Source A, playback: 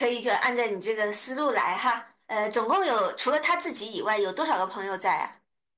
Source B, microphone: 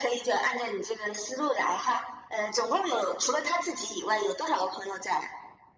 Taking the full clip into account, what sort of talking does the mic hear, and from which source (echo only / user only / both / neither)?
echo only